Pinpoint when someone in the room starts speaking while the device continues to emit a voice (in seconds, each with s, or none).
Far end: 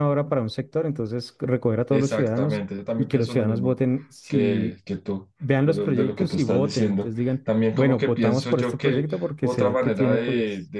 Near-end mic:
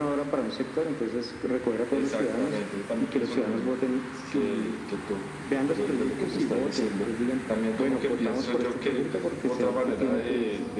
none